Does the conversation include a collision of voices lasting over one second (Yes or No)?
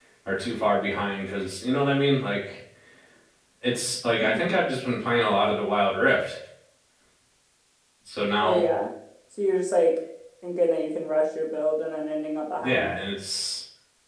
No